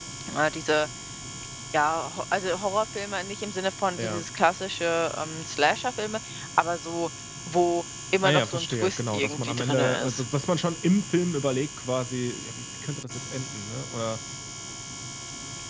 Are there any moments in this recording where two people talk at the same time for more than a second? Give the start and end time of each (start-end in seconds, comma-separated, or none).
8.2-10.2